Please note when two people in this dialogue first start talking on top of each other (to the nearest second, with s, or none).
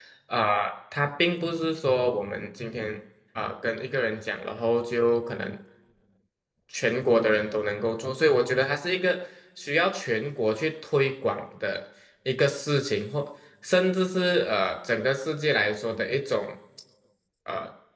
none